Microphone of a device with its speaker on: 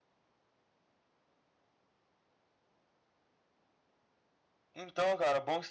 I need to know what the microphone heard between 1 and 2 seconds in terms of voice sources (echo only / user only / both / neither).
neither